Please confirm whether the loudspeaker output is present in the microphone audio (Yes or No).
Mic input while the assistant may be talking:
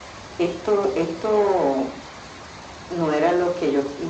Yes